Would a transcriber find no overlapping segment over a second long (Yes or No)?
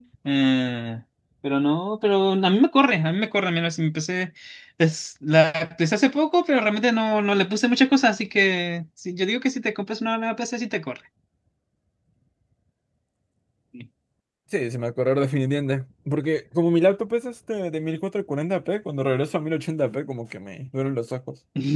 Yes